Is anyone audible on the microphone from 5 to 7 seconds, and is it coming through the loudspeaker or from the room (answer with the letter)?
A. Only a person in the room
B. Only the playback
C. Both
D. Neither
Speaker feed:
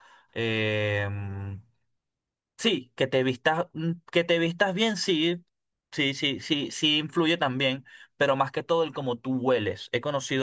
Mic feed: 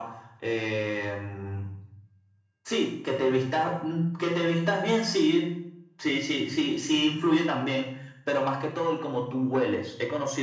B